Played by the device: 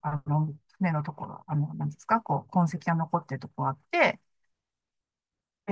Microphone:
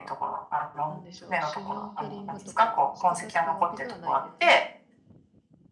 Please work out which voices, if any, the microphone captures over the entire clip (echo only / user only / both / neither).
both